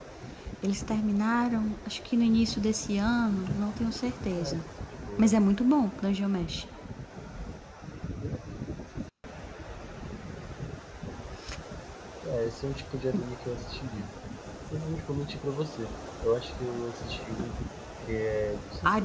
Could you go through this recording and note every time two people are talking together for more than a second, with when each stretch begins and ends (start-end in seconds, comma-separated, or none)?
none